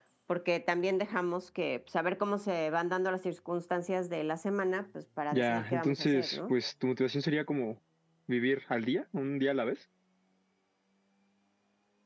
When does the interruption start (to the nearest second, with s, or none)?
5 s